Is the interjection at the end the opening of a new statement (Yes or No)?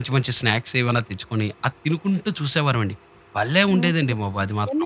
Yes